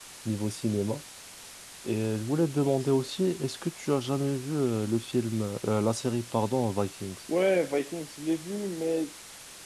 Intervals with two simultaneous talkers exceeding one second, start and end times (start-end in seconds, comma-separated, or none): none